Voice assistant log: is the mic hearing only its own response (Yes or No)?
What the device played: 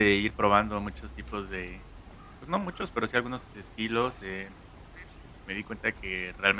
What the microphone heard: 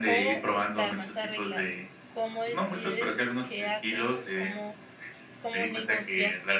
No